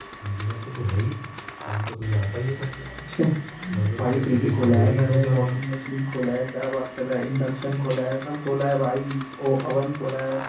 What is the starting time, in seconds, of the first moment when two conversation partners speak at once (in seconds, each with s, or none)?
4.0 s